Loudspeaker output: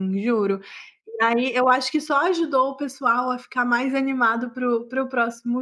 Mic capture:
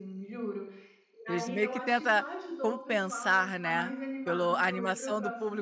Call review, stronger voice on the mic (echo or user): user